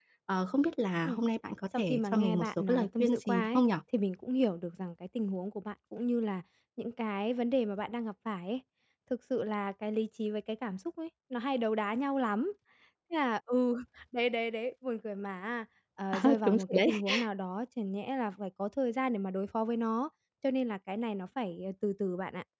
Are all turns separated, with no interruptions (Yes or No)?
No